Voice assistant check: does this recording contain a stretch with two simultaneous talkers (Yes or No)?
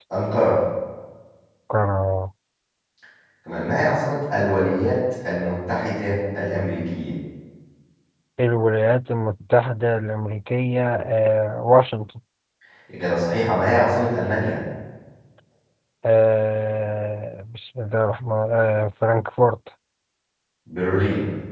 No